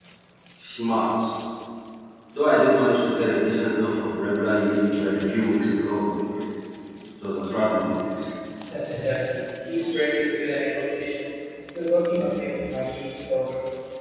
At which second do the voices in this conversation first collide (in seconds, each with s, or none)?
none